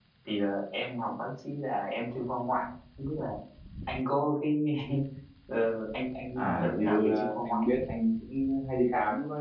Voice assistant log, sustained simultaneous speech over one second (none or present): present